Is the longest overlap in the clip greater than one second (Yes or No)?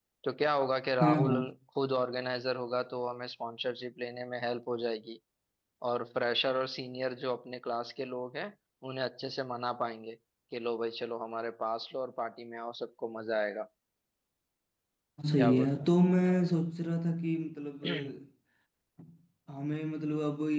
No